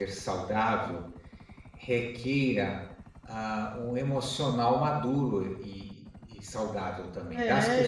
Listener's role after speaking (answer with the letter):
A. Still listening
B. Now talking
B